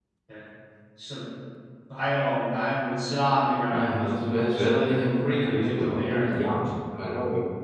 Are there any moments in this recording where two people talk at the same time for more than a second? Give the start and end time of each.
3.7-6.8

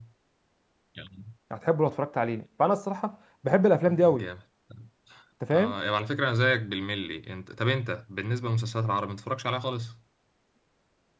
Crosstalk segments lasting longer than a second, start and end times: none

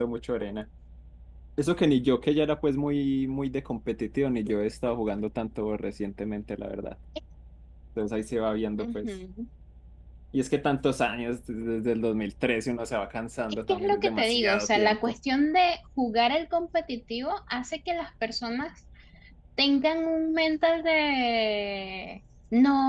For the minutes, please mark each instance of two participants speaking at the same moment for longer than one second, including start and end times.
13.7-15.2

